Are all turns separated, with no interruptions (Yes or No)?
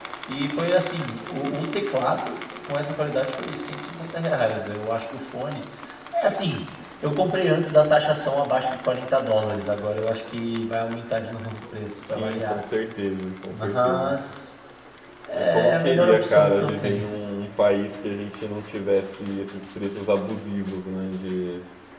No